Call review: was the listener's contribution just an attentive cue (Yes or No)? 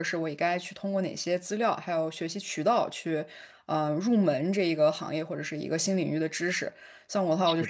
Yes